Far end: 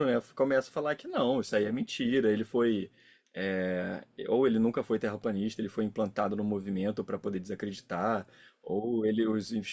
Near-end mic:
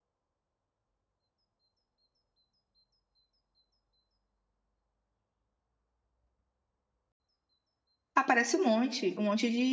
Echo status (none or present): none